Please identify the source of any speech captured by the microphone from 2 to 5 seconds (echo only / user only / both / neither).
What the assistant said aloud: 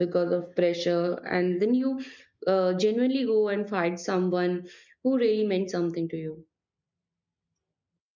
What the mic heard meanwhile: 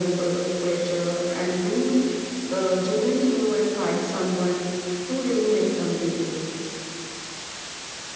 echo only